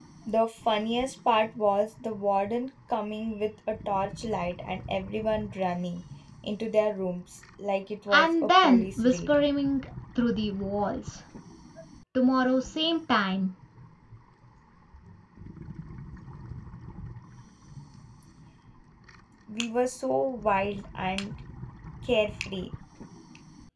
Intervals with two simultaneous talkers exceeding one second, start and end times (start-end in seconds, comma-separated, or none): 8.1-9.3